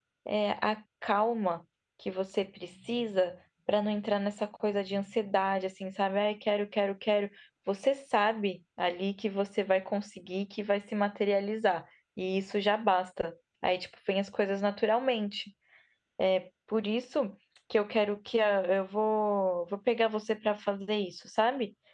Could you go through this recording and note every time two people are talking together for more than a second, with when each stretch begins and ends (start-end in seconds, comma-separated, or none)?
none